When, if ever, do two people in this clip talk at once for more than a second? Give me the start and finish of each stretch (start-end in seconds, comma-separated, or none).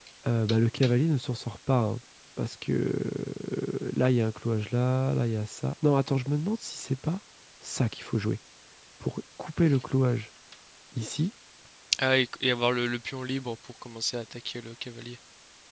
none